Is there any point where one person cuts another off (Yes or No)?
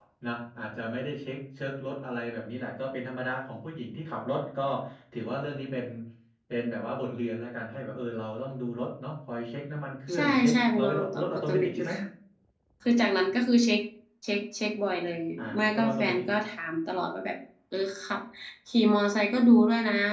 Yes